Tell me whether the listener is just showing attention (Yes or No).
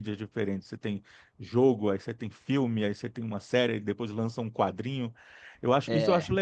Yes